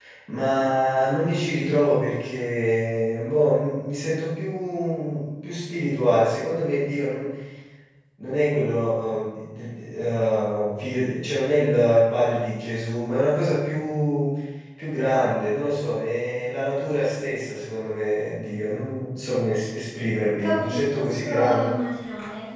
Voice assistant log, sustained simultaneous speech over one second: present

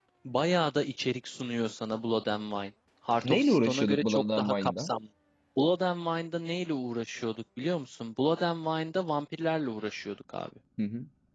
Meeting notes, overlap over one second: present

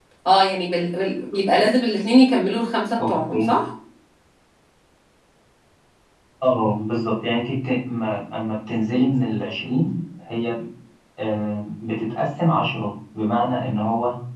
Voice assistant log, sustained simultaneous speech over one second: none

